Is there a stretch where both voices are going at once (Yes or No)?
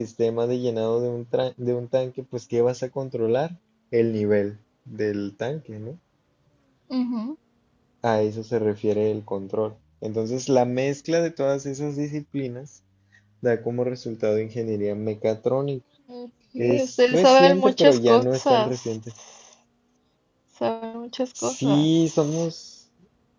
Yes